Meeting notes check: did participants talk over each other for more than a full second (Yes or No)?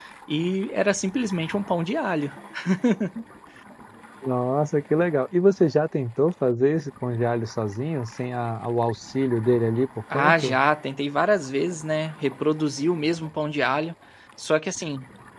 No